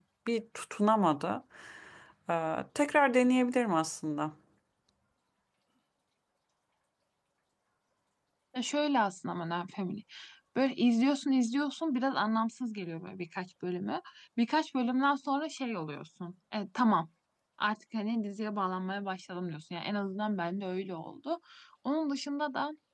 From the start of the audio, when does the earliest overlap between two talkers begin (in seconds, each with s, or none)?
none